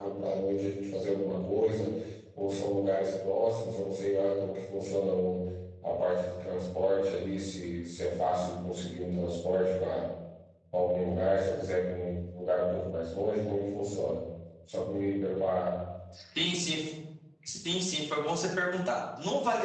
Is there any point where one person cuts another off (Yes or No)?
No